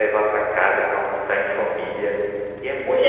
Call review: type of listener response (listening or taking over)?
taking over